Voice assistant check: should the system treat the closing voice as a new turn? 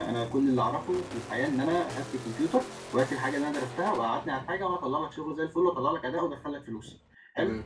No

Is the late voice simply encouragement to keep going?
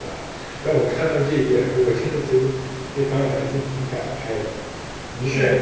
No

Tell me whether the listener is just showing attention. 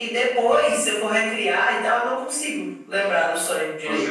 No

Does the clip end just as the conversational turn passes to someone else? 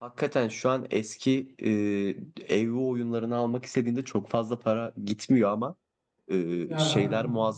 No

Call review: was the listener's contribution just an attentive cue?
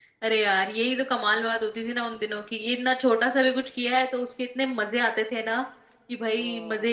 Yes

